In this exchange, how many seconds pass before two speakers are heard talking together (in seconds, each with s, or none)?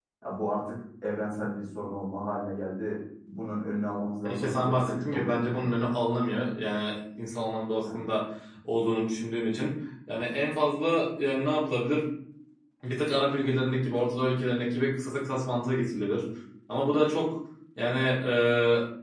4.2 s